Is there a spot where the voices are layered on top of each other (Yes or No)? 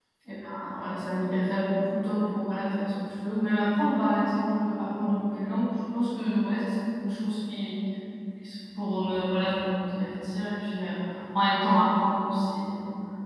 No